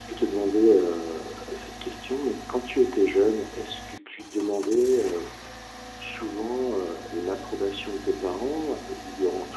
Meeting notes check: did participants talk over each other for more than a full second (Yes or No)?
No